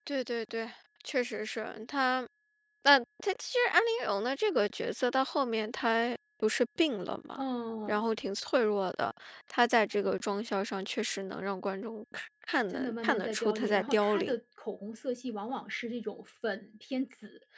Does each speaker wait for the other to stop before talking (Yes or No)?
No